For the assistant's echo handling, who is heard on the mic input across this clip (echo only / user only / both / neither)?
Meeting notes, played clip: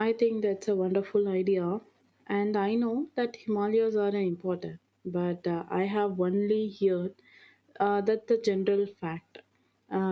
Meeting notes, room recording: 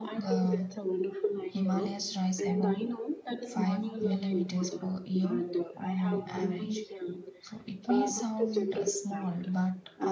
both